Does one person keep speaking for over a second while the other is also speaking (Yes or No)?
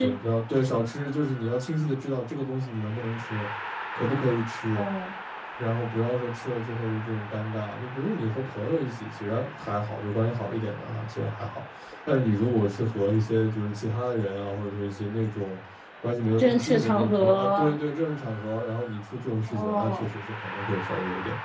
Yes